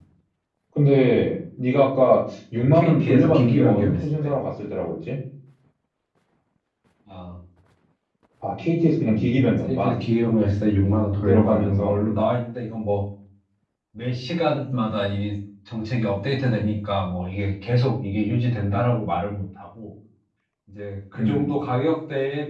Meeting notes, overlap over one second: present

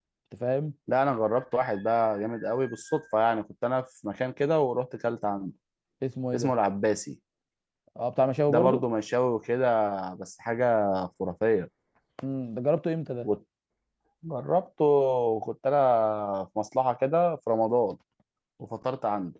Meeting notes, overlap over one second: none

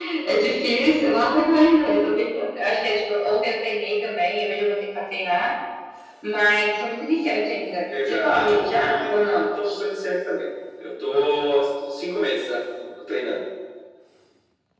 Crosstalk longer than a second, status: present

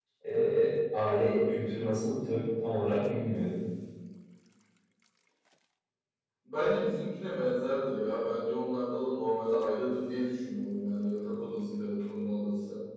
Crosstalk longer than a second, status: none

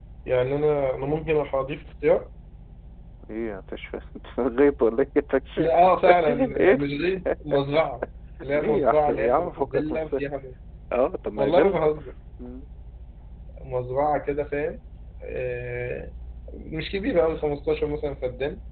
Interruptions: present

